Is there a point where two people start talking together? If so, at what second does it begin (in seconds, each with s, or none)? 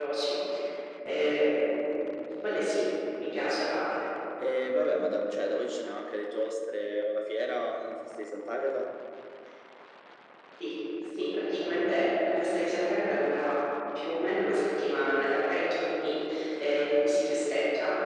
none